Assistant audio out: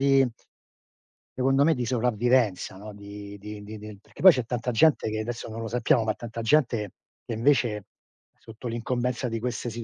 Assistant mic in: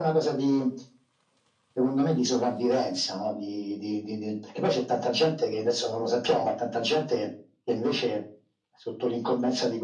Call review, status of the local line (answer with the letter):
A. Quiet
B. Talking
A